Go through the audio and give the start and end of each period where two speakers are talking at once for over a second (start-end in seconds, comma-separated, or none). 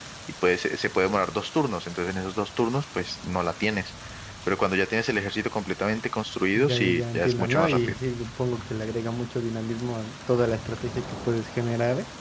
6.5-8.0